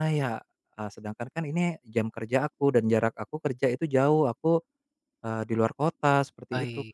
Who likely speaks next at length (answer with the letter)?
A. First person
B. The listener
B